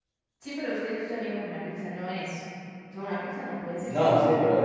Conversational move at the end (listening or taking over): taking over